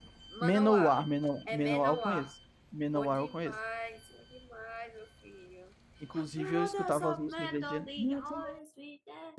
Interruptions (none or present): present